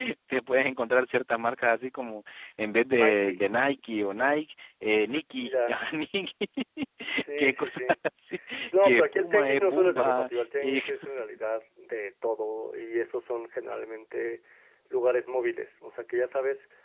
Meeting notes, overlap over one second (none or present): present